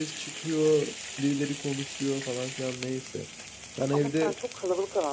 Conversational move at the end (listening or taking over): taking over